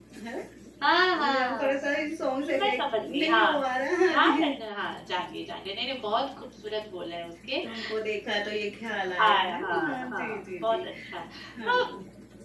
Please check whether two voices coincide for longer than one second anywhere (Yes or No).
Yes